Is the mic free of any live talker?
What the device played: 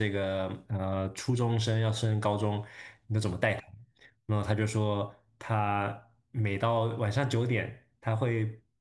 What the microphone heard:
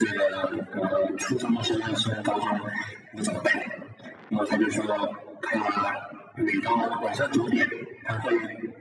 Yes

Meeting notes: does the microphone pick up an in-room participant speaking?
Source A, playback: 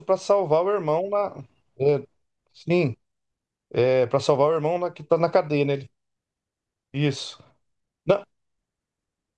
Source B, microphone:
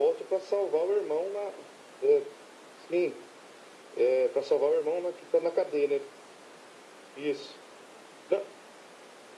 No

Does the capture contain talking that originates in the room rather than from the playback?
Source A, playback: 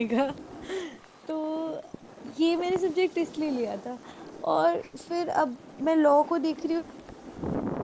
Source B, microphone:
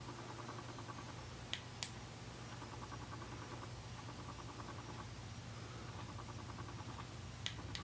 No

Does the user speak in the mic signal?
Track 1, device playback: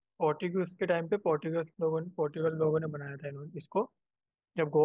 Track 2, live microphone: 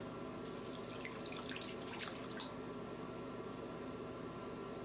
No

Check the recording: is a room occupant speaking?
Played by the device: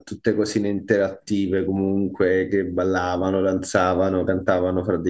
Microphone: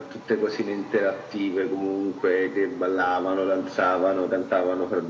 No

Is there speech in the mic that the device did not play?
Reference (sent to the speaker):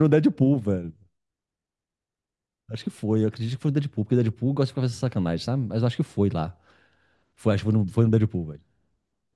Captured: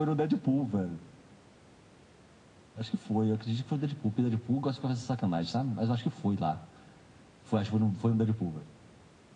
No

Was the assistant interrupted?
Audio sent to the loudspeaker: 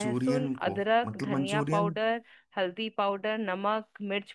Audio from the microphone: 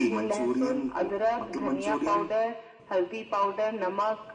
No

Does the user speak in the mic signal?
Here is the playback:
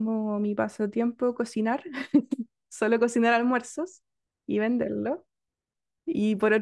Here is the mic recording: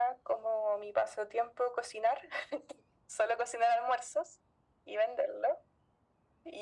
No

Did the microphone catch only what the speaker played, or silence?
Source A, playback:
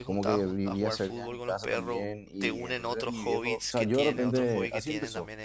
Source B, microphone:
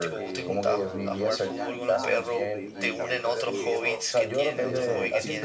No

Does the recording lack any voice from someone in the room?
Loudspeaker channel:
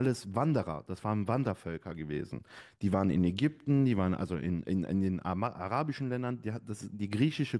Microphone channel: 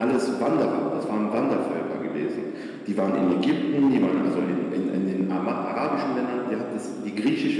Yes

